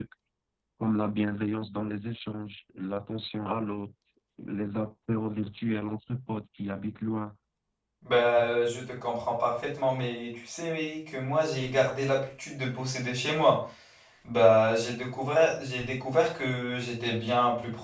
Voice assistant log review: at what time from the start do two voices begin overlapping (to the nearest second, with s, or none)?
none